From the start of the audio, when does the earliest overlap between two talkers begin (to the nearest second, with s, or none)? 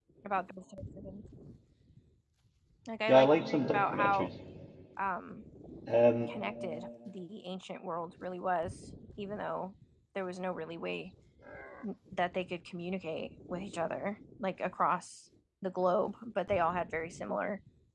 3 s